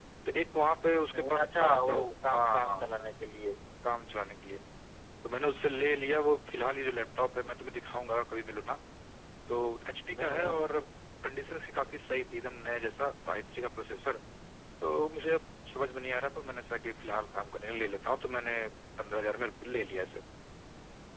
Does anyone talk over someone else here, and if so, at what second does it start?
1.1 s

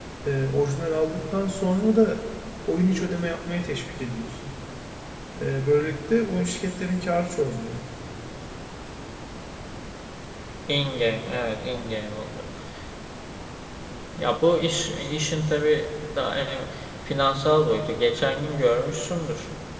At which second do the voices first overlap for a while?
none

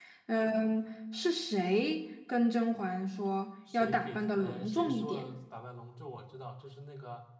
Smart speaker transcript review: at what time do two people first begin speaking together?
3.7 s

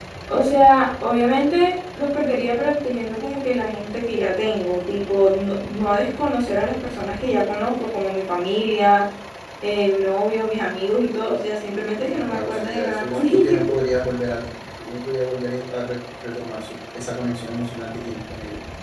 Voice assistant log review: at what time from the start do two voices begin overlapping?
12.1 s

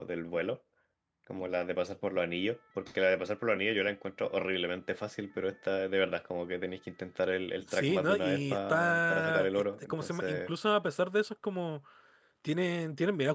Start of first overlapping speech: 7.7 s

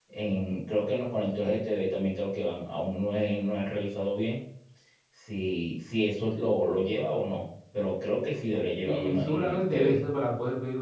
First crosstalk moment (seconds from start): 8.8 s

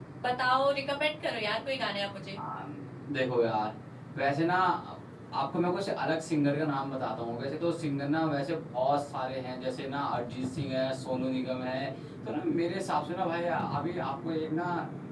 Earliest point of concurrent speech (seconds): none

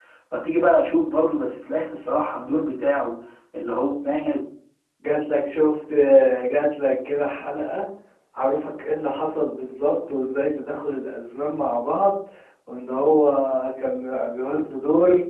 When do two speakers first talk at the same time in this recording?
none

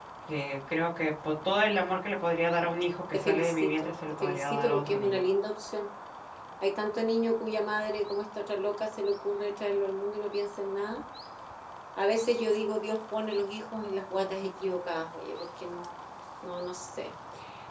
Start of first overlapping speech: 3.1 s

